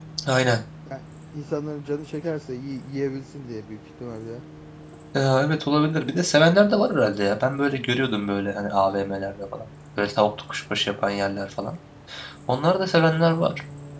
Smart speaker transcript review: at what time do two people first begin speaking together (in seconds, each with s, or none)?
none